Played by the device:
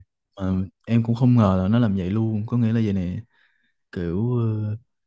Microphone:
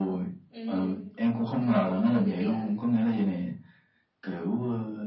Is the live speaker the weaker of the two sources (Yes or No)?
Yes